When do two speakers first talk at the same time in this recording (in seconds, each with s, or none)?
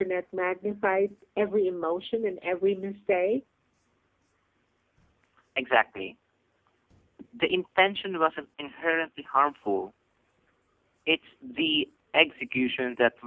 none